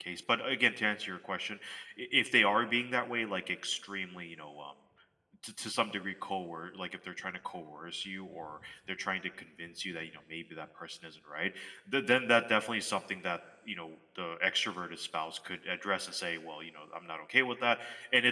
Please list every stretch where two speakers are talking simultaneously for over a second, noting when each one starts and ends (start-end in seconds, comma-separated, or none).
none